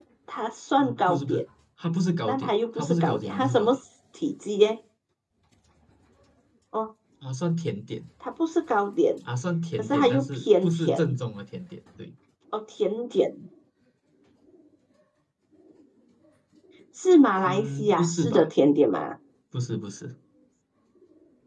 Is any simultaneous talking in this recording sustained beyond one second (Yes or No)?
Yes